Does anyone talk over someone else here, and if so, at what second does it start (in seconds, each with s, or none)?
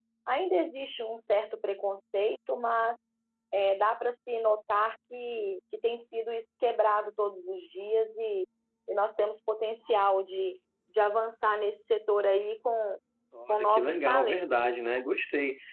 13.5 s